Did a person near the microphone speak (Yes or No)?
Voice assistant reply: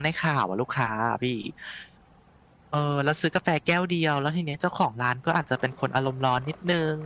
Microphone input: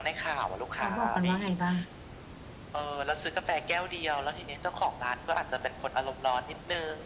Yes